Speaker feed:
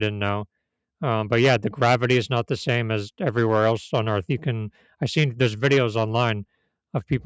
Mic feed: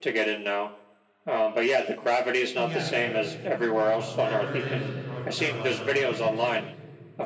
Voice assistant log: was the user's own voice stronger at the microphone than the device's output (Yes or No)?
No